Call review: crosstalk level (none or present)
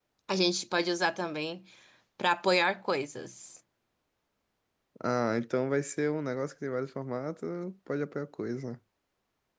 none